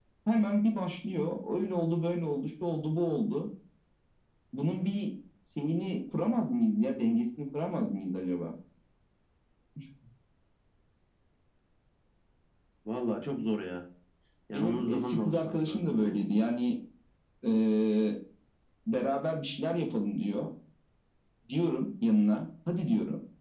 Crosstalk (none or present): present